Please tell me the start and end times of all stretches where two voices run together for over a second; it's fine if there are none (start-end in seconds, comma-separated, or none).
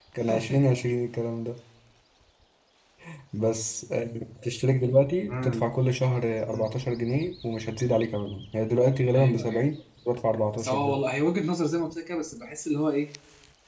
none